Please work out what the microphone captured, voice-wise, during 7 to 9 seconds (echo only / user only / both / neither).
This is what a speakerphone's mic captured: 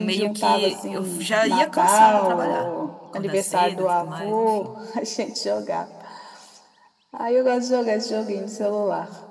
echo only